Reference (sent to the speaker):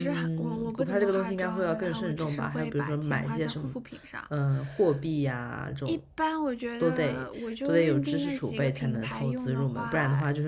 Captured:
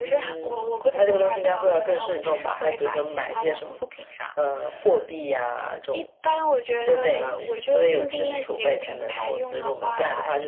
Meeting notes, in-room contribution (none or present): none